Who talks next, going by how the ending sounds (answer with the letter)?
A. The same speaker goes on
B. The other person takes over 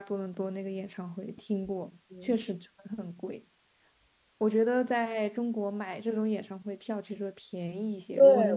B